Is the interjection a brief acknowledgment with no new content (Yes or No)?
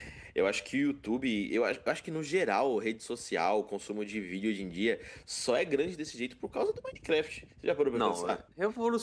No